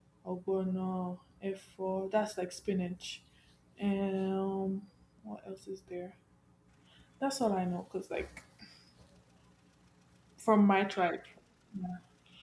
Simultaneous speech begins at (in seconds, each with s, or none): none